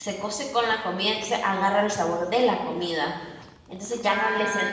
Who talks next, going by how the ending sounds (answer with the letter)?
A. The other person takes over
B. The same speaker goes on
A